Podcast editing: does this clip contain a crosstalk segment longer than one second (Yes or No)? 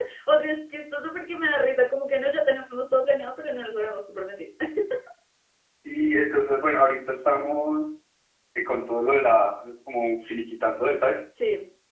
No